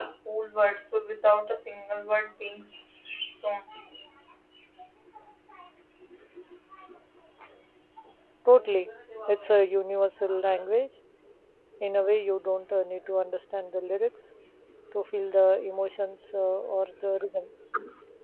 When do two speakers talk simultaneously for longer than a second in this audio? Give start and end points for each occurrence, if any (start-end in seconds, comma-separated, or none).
none